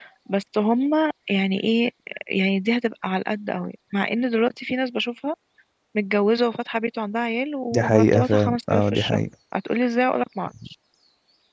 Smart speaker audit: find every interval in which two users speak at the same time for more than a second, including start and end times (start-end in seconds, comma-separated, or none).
7.7-9.2